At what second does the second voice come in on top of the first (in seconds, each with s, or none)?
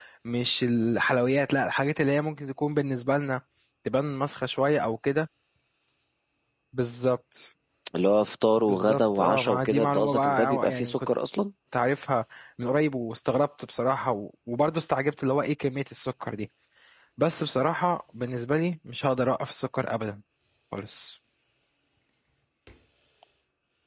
8.6 s